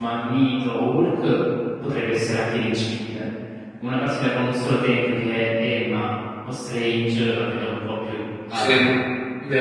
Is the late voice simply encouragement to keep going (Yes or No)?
No